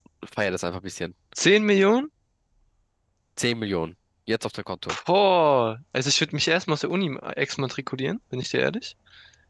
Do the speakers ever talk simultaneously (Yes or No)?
No